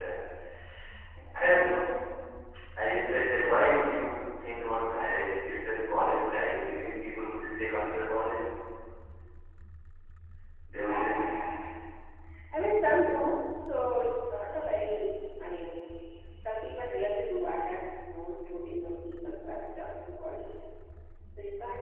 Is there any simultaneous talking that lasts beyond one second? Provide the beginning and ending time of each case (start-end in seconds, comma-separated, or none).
none